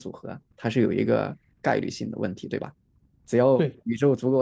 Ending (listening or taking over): listening